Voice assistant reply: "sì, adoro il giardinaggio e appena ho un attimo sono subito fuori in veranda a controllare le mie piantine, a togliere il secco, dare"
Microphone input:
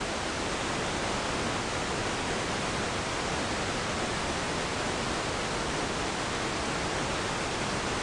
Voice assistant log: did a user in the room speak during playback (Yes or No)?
No